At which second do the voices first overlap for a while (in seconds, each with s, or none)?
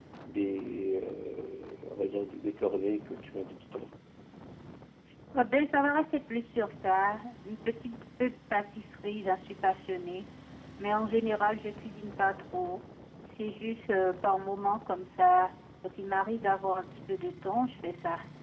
none